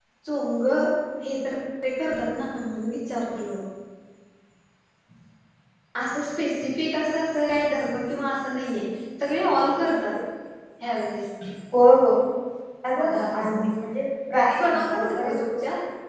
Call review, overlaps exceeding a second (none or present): present